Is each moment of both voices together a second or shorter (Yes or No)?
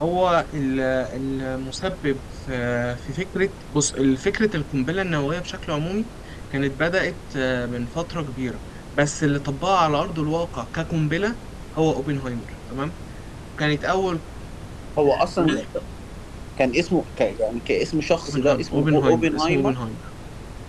No